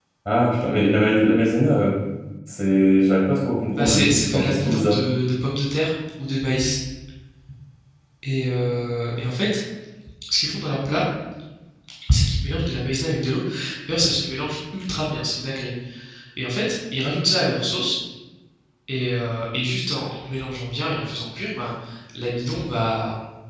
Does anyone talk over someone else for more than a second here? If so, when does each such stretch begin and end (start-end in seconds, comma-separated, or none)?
3.8-5.0